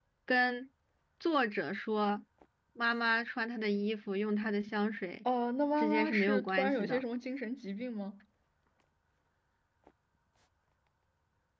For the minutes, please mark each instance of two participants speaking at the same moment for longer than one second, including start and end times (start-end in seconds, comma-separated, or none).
5.8-7.0